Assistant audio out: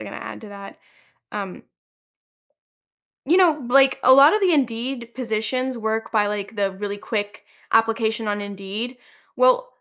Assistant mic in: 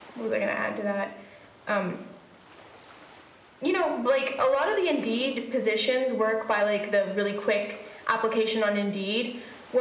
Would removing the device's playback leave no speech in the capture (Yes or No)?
Yes